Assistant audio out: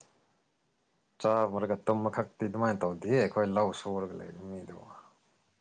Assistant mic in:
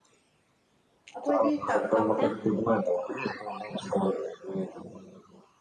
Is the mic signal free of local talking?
No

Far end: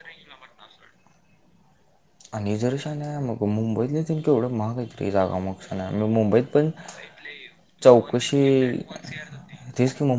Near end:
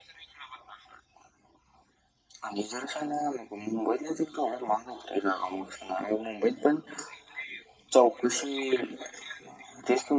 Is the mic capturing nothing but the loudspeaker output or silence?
Yes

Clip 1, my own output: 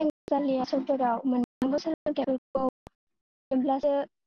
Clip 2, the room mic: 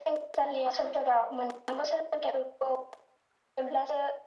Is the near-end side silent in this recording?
Yes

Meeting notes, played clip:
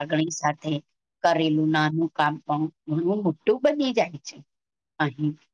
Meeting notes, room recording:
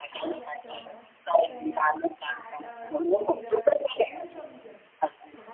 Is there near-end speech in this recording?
Yes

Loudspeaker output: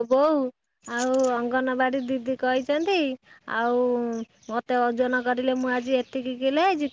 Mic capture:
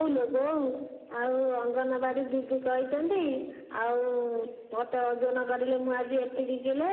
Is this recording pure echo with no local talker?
Yes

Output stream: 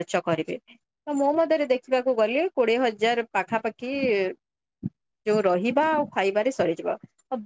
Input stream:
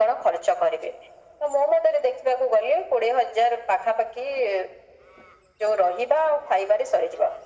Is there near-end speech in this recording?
No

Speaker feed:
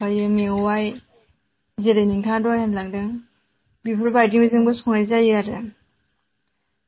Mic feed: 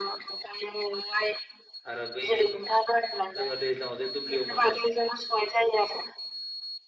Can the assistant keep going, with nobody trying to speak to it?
No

